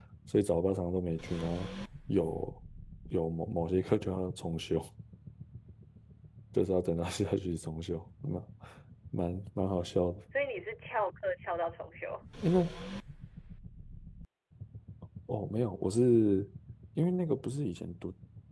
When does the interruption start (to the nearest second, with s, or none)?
none